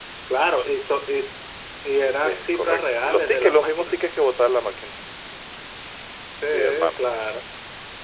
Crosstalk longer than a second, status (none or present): present